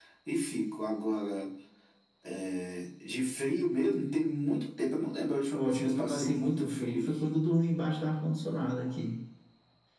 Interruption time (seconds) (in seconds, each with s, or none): 5.5 s